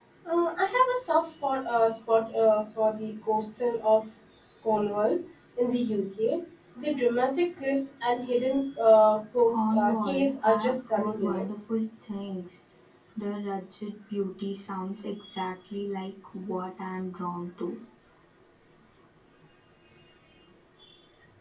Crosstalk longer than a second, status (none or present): present